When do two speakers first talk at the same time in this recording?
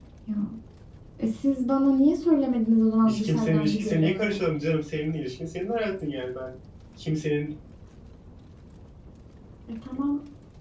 3.0 s

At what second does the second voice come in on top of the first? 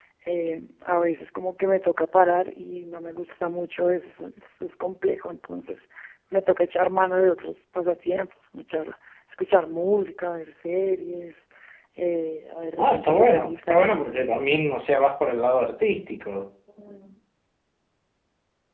12.8 s

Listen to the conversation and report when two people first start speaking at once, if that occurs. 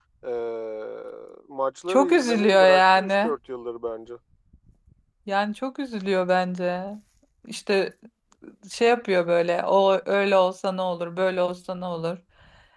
1.9 s

